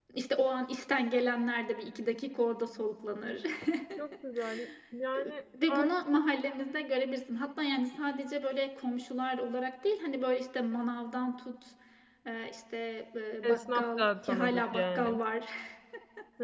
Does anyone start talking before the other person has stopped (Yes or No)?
Yes